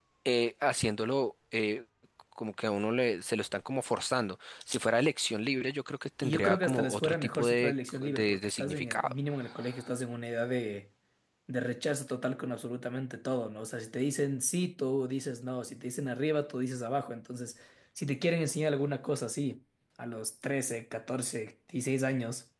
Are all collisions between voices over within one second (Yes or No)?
No